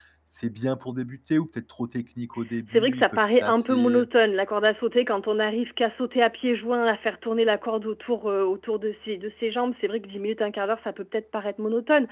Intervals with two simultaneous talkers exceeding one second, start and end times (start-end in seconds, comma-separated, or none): 2.7-4.0